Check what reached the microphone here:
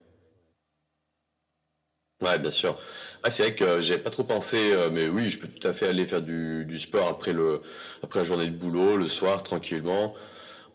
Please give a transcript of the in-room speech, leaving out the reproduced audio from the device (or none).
none